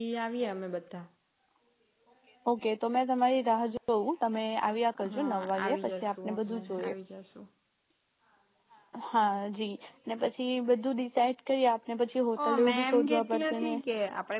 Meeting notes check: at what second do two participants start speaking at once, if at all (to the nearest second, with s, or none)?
5 s